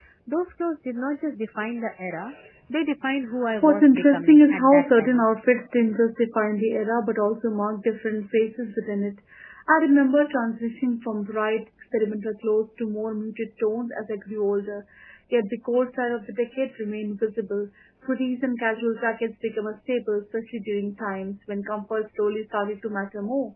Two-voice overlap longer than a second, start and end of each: 3.6-5.2

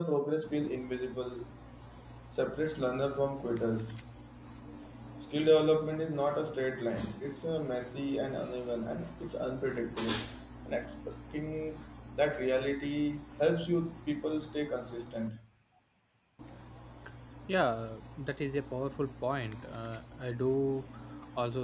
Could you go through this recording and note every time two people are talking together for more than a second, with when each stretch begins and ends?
none

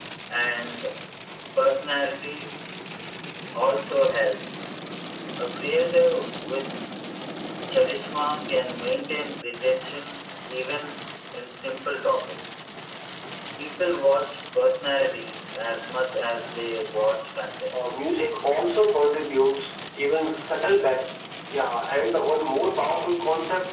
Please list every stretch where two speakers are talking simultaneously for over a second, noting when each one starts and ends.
none

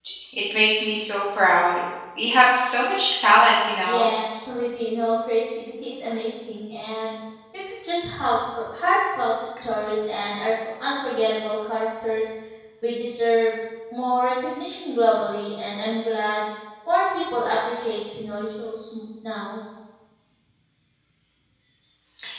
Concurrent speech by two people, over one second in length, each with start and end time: none

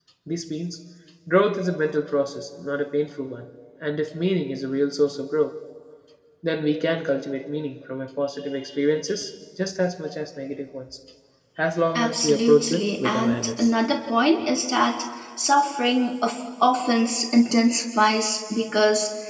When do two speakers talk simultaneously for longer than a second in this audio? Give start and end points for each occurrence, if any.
11.9-13.7

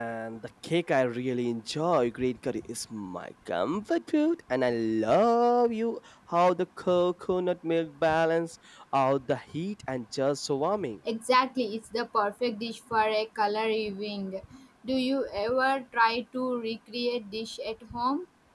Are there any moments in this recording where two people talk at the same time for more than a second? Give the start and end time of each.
none

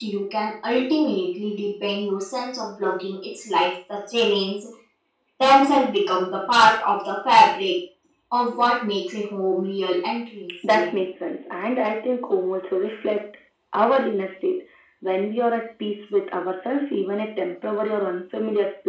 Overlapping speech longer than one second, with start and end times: none

